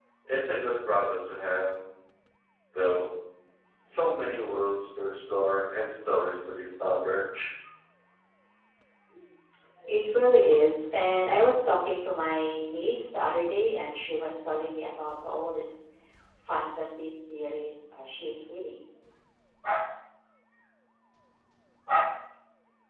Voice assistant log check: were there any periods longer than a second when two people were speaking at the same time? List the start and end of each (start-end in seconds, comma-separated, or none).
none